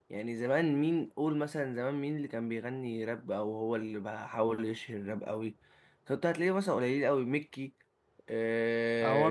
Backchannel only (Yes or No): No